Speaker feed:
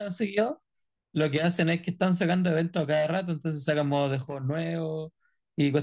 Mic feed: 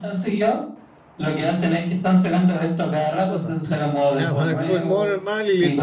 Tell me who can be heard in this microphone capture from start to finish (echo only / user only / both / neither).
both